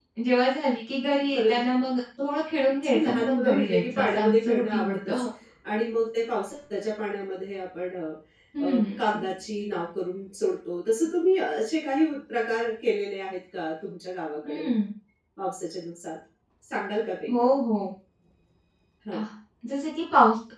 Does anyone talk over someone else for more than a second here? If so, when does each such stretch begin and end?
2.8-5.2

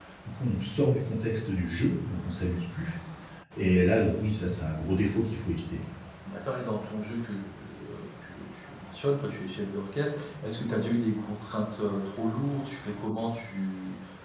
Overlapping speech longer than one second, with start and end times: none

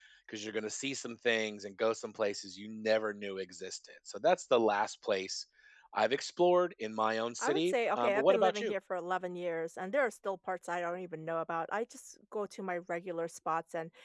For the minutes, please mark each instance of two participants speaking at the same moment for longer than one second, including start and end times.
7.4-8.7

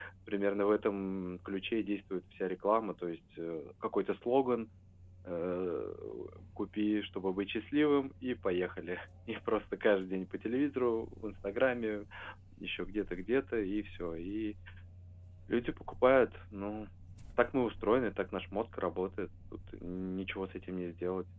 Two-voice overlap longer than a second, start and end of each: none

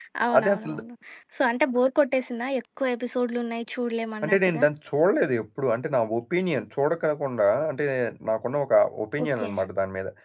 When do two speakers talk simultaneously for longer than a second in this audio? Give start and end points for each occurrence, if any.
none

